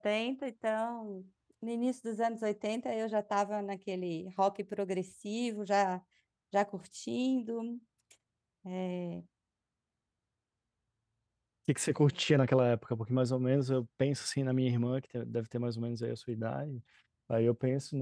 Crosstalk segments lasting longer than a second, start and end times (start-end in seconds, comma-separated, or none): none